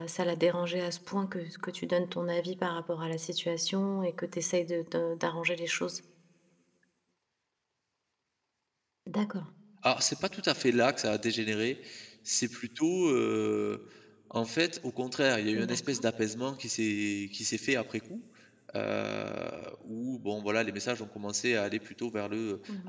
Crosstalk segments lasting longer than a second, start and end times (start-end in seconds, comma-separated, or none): none